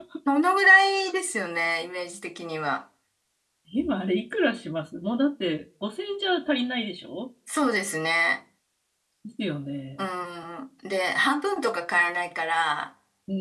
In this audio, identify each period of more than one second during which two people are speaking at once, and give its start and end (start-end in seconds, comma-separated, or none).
none